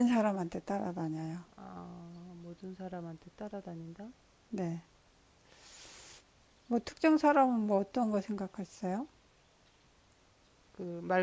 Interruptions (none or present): none